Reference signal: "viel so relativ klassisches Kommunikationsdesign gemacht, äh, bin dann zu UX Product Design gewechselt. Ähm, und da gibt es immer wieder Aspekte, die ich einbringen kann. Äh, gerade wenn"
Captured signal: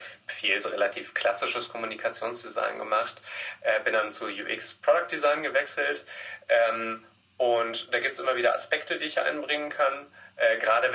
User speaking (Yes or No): No